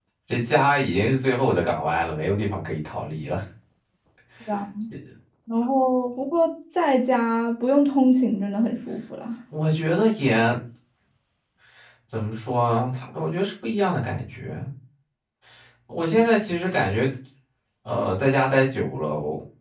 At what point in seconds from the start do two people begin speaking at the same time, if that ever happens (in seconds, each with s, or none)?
none